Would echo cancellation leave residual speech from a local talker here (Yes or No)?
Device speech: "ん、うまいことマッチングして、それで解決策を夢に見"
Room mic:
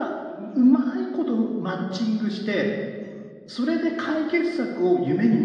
No